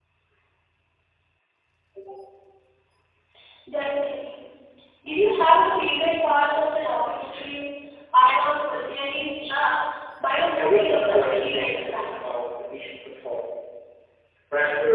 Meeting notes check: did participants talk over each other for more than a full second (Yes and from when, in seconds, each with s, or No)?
Yes, from 10.6 s